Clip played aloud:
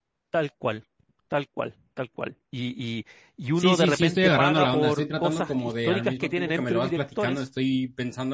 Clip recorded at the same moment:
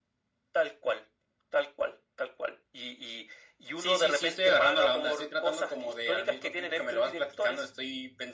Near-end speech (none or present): none